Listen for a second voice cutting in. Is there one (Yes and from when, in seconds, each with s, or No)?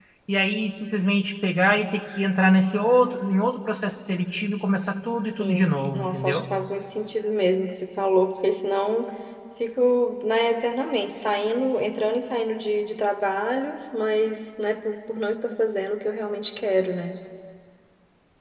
Yes, from 5.2 s